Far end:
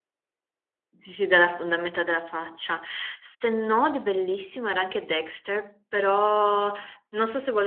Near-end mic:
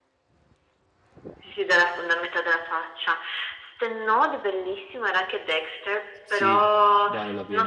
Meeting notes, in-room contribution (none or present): present